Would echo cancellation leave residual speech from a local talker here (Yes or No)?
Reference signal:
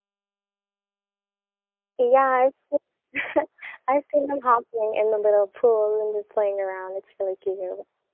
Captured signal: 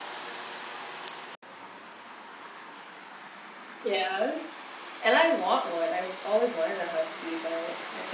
Yes